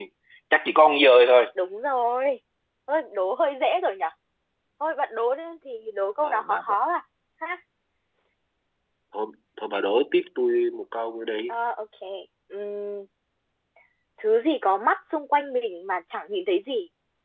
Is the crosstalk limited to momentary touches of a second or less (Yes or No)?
Yes